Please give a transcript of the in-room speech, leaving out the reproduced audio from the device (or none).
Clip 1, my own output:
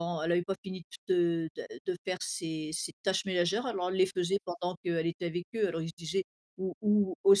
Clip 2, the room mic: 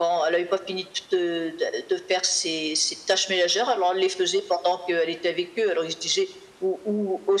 none